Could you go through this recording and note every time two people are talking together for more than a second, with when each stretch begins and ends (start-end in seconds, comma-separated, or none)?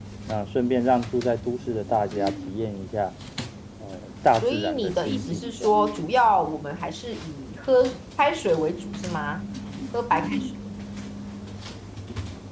4.4-5.7